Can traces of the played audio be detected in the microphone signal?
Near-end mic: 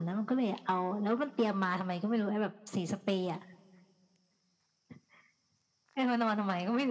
Yes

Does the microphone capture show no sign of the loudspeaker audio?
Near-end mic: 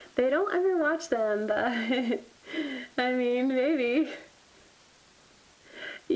No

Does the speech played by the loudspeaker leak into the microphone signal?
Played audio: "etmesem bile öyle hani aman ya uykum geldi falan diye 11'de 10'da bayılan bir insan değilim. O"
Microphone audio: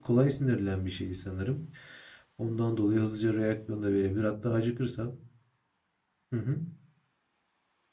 No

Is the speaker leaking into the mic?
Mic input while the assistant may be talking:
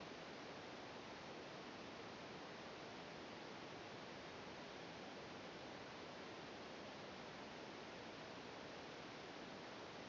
No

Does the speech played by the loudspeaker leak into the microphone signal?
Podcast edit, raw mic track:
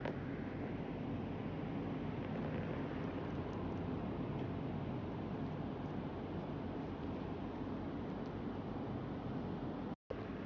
No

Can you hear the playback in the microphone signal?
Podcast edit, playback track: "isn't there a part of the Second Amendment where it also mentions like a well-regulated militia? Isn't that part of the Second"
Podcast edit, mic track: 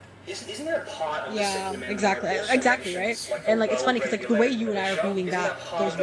Yes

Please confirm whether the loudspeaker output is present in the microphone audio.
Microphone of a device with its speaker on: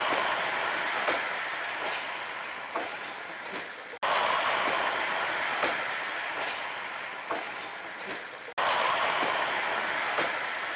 No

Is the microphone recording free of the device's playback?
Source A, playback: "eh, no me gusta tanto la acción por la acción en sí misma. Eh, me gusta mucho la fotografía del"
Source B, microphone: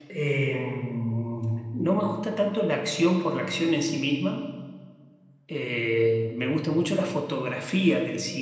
No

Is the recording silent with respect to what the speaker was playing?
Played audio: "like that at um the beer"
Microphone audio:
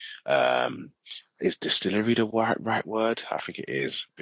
Yes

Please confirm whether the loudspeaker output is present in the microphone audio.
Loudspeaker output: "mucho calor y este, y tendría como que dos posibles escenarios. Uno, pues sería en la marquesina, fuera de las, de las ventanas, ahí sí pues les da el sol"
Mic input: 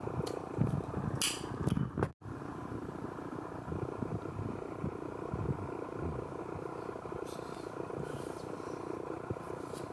No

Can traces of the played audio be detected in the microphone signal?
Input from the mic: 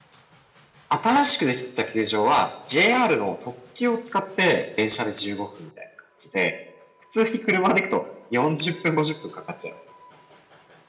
No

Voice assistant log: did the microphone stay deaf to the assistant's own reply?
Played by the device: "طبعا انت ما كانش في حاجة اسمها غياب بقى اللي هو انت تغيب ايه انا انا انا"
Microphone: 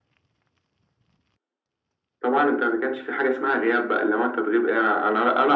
No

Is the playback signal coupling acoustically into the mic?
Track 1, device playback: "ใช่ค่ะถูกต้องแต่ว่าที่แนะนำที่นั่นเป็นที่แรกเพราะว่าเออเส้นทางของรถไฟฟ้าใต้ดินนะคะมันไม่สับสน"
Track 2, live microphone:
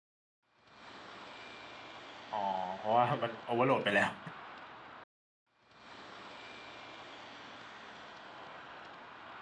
No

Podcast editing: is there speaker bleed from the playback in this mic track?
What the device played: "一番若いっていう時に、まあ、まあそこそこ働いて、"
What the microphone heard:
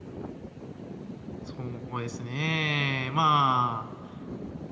No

